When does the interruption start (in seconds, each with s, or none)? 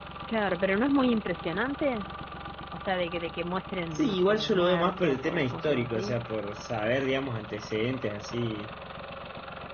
3.9 s